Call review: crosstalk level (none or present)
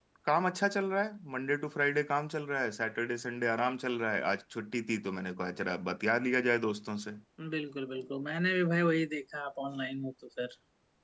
none